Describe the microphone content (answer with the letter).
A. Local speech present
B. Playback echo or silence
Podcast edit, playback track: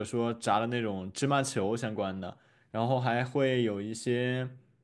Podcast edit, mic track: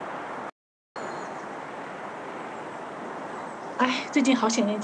A